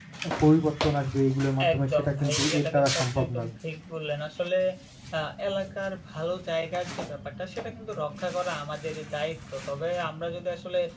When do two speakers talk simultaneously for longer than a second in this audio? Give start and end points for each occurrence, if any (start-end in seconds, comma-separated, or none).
1.7-3.5